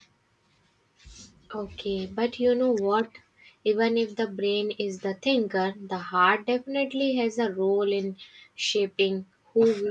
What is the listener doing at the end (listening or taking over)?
taking over